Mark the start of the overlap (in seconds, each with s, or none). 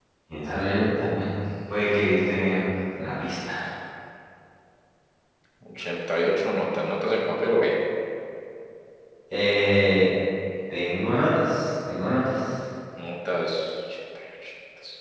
none